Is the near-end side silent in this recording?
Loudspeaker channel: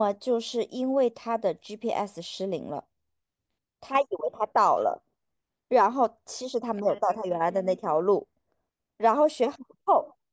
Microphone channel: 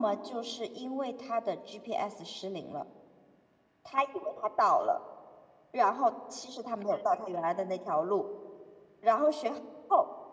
Yes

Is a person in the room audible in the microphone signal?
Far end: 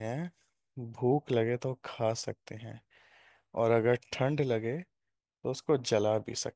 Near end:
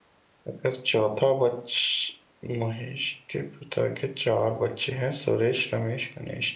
Yes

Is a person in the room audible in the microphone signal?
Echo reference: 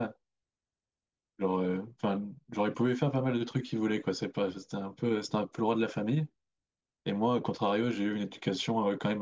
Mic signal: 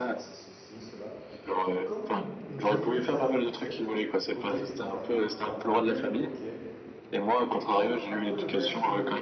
Yes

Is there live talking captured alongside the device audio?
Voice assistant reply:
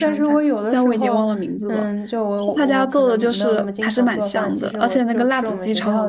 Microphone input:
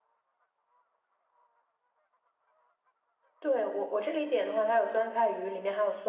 Yes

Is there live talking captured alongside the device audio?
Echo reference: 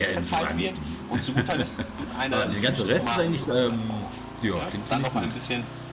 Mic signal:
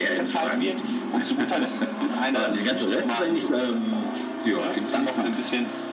No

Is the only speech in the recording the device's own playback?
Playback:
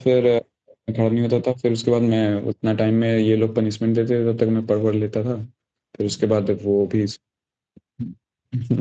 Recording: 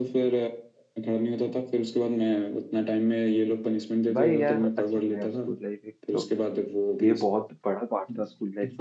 No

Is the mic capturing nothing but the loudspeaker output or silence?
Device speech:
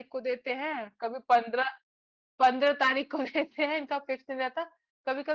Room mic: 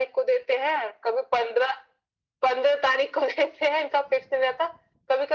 Yes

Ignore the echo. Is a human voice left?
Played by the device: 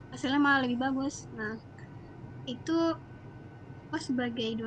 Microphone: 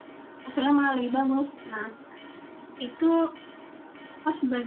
No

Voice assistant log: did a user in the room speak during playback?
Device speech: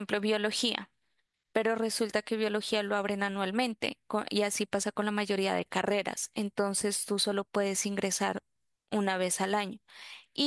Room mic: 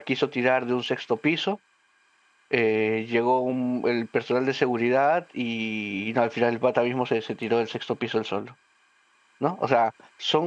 Yes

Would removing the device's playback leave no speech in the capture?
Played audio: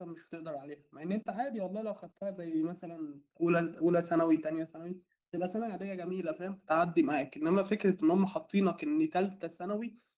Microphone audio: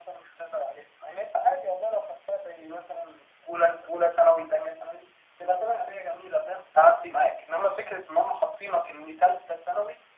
Yes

